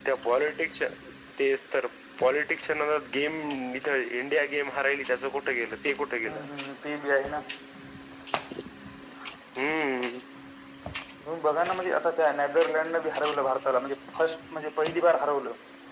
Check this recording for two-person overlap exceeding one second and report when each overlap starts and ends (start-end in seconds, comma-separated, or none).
none